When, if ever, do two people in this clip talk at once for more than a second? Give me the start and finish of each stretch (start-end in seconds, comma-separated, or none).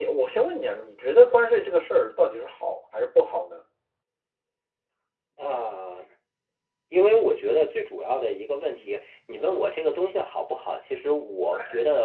none